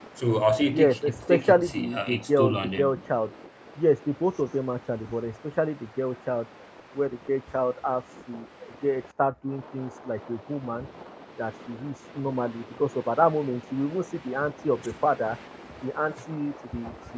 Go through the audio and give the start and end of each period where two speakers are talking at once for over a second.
0.7-2.9

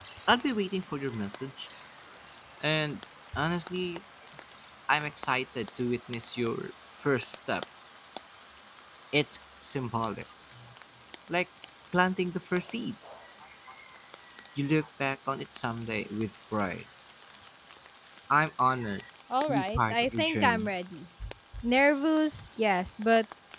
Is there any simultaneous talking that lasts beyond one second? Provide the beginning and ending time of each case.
19.5-20.7

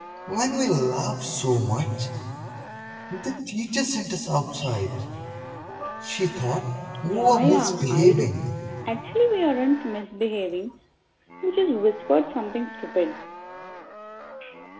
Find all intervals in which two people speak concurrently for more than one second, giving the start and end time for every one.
7.0-8.4

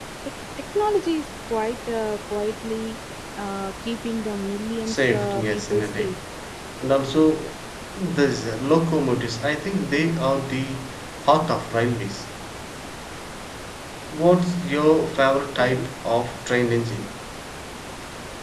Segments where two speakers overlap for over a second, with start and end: 4.9-6.2

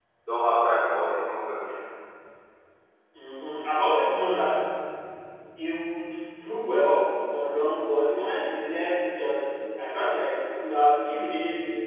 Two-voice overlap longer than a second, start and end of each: none

